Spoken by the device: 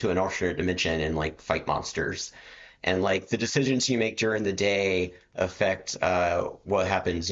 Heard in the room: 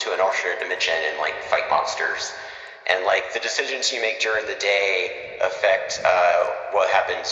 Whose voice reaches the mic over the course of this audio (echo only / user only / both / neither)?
echo only